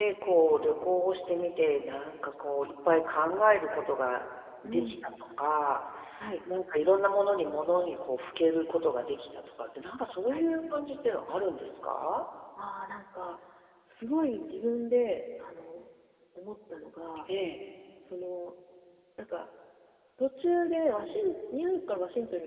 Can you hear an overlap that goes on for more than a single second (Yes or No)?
No